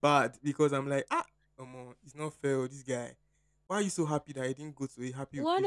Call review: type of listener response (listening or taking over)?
taking over